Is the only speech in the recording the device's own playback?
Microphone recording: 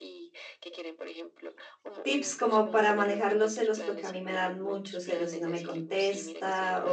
No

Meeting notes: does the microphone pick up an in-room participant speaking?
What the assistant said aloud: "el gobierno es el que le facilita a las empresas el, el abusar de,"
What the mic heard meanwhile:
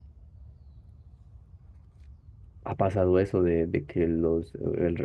Yes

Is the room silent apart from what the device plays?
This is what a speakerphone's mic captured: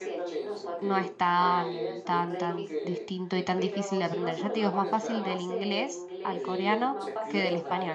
No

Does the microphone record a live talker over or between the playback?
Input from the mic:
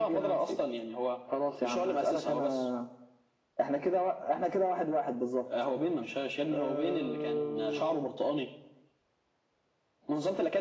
No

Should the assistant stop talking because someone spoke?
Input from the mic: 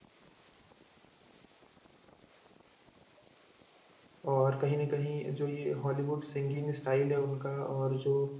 Yes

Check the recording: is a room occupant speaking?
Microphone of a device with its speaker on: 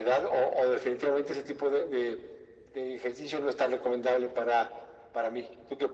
No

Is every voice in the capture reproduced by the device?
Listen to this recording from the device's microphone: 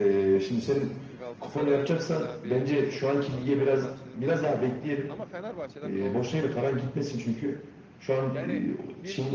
No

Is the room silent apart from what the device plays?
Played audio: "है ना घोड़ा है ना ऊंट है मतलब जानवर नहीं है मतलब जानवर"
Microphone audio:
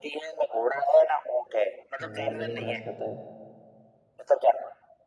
No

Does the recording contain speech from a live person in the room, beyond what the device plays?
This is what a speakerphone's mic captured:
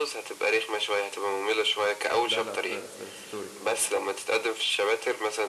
Yes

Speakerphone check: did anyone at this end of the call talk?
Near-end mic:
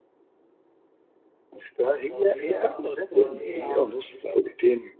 Yes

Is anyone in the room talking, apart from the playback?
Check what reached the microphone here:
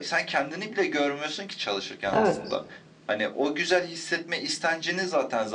Yes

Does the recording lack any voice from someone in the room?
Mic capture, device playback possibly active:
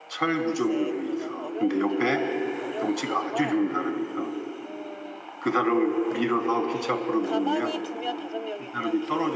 No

